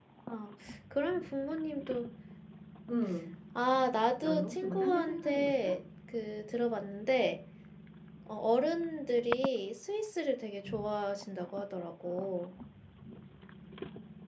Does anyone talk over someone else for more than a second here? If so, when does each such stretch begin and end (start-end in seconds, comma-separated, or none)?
4.2-5.7